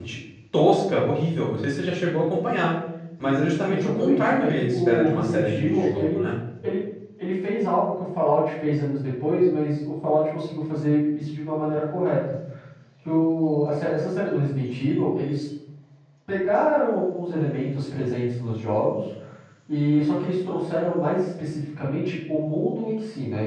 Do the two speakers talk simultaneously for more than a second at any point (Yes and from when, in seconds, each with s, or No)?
Yes, from 3.2 s